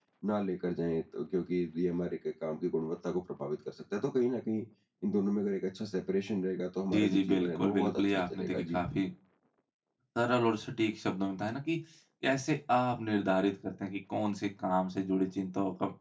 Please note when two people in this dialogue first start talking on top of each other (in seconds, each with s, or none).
6.9 s